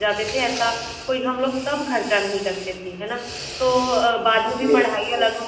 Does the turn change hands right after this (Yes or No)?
No